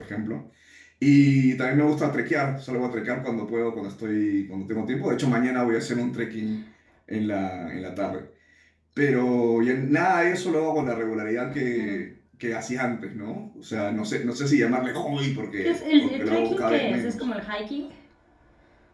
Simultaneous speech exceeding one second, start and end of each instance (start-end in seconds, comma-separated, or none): 15.6-17.2